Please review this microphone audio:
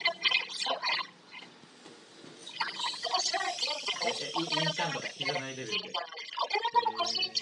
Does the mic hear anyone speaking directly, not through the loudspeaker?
Yes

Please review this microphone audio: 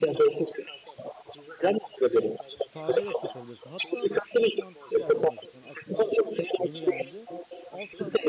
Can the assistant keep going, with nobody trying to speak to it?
No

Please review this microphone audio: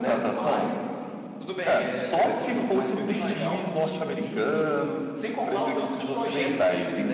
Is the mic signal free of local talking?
No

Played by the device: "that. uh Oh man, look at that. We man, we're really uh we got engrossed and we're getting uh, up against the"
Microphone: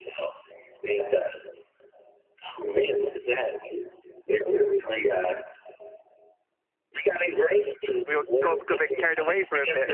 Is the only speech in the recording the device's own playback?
No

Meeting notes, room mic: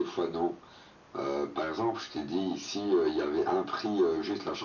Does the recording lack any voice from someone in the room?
Yes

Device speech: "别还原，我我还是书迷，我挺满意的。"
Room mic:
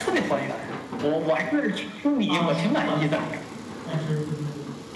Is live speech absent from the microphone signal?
No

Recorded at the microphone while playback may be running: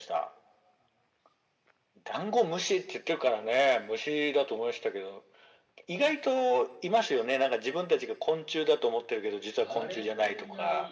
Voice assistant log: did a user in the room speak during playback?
Yes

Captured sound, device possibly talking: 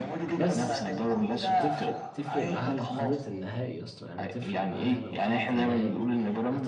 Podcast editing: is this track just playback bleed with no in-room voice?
No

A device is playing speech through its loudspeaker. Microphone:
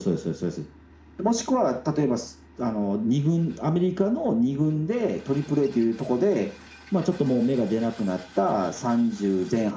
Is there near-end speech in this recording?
No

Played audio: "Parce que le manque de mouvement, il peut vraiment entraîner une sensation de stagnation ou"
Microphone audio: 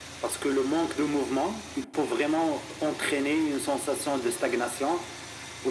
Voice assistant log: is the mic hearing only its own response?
Yes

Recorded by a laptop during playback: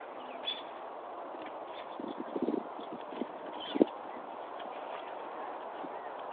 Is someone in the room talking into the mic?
No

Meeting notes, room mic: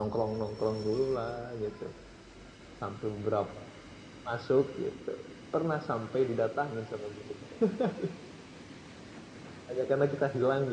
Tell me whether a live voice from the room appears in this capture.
Yes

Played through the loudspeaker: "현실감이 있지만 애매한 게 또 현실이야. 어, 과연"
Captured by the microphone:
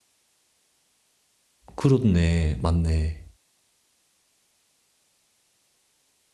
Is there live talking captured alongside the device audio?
Yes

